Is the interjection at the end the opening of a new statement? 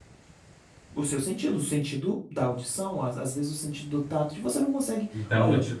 Yes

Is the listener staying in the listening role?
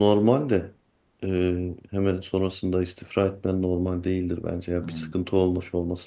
Yes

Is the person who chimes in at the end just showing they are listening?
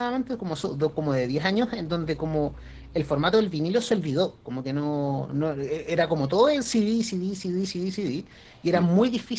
Yes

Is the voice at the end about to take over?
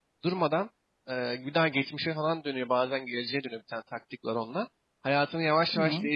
No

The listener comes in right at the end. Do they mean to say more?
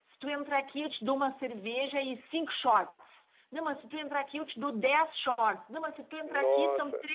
No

